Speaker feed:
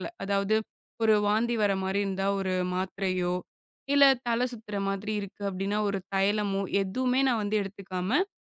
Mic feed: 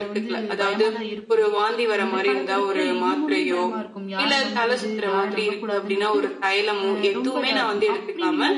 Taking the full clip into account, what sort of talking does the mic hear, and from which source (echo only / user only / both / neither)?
both